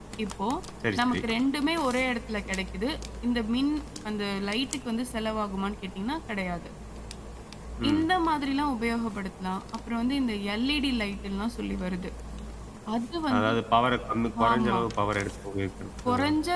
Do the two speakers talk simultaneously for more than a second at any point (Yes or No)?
No